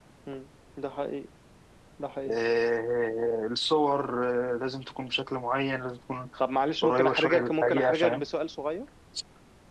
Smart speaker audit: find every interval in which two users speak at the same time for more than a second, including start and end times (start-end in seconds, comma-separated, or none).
6.8-8.2